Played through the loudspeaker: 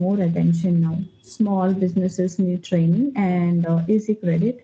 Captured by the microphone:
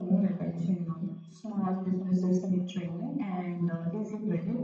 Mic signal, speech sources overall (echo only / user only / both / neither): echo only